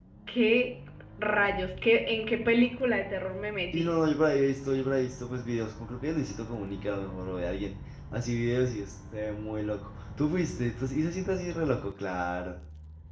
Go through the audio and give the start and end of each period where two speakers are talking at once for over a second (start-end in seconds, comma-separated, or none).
none